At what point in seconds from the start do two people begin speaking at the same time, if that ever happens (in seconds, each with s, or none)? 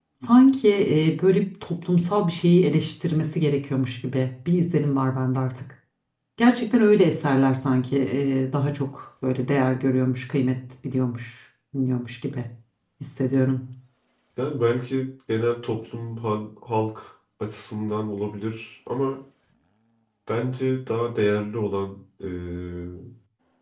none